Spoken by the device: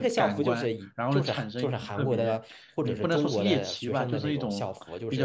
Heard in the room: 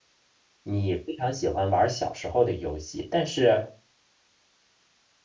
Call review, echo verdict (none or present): none